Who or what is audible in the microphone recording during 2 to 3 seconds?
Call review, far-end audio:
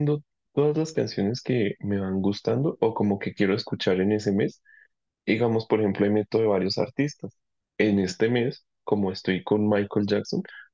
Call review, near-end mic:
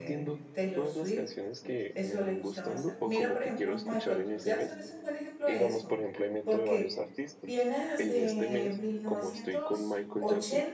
both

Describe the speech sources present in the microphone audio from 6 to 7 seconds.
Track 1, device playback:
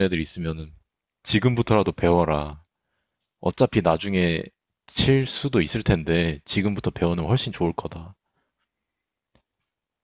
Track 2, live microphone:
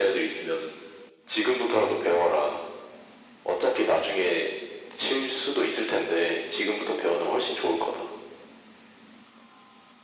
echo only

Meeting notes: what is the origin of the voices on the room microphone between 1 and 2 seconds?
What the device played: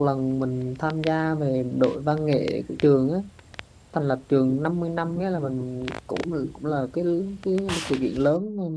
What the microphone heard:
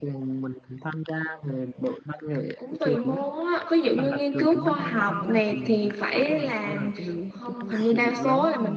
echo only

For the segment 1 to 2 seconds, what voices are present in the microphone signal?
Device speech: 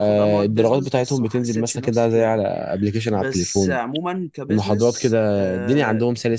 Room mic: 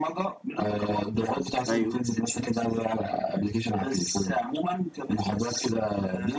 both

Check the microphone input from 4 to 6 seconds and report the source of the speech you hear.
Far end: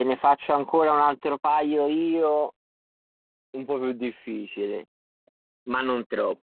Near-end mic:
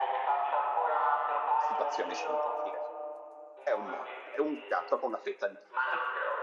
both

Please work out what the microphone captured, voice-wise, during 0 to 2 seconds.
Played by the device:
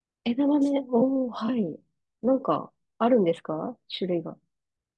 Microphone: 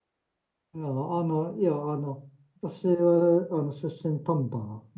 user only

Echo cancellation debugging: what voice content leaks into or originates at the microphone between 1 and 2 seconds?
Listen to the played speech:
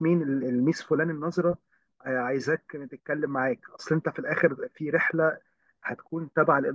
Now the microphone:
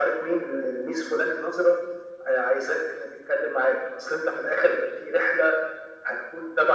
echo only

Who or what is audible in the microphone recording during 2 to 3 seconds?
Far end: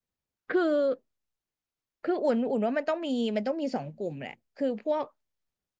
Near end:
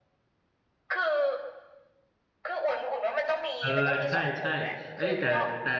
echo only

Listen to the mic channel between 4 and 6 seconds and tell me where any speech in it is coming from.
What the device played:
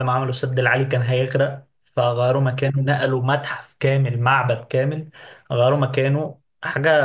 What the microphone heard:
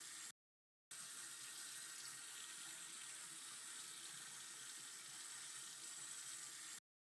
neither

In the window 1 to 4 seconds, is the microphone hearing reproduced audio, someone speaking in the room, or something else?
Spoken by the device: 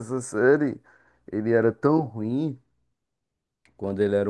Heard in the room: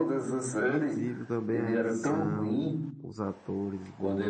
both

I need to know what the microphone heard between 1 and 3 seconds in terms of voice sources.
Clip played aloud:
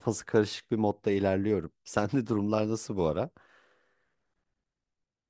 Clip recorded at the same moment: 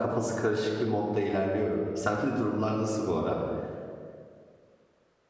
echo only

